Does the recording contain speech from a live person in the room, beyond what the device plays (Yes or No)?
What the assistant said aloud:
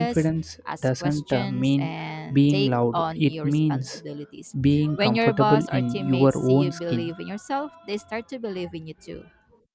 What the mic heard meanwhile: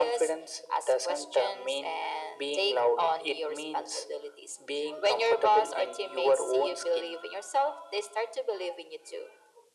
No